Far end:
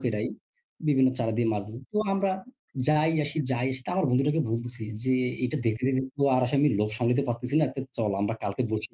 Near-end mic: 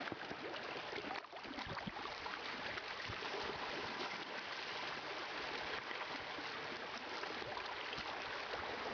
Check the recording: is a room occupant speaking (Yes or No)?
No